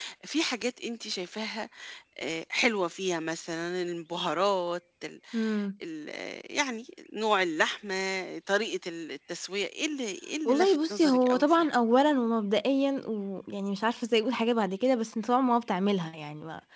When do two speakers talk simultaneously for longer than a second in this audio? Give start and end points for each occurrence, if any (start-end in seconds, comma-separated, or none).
10.4-11.7